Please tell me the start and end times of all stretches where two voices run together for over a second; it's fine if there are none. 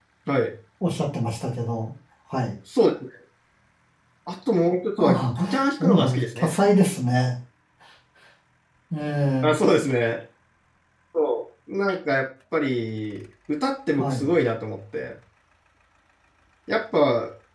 5.0-6.5

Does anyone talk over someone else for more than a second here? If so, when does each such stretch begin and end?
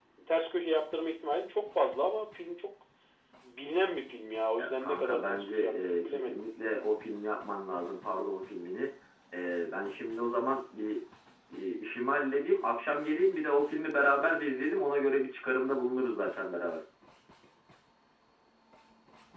4.6-6.4

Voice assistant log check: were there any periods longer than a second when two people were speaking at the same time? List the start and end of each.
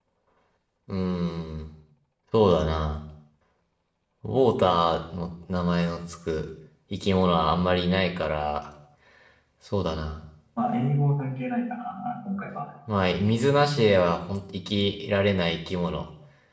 none

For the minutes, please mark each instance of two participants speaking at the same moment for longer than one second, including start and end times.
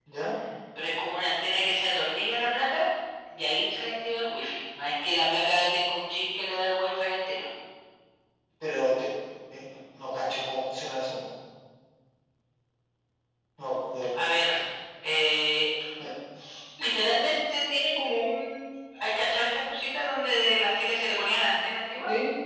none

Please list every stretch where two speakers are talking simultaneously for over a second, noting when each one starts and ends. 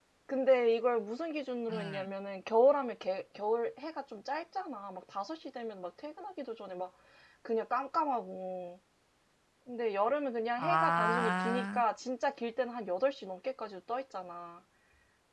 10.6-11.8

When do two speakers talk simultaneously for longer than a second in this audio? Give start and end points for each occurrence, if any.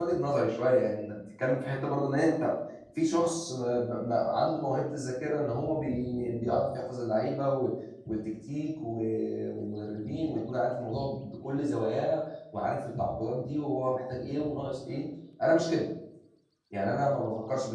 none

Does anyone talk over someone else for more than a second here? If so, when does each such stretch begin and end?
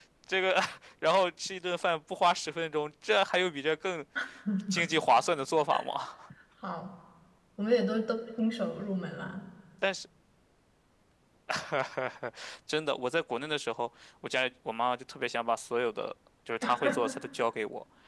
none

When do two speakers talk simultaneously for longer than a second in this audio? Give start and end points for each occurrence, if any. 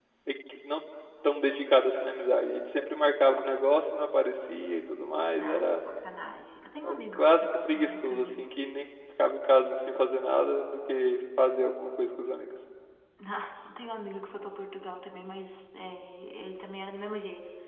6.8-8.5

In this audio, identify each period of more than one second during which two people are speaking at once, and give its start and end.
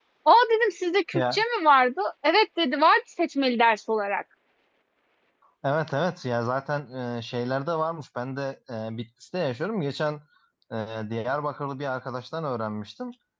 none

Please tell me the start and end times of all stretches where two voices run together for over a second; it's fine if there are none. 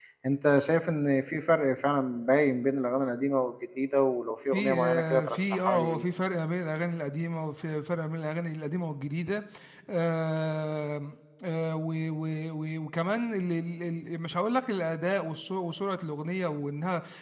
4.5-6.0

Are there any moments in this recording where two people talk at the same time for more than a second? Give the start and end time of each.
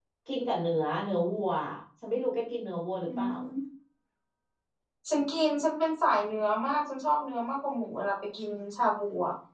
none

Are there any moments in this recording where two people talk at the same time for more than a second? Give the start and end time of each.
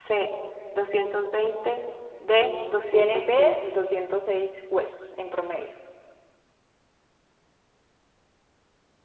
2.3-3.6

